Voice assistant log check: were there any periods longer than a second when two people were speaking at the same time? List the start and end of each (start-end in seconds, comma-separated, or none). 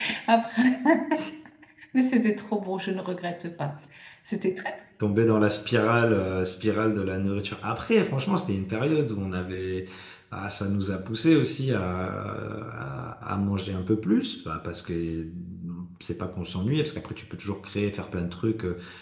none